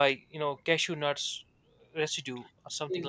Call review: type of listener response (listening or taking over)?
taking over